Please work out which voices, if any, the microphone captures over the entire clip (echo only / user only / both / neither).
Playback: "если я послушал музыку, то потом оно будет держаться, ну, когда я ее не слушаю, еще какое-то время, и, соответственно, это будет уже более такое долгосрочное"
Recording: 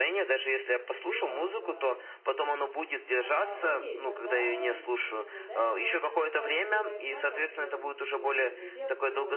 both